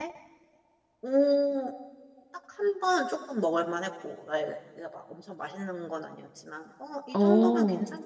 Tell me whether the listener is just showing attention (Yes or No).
Yes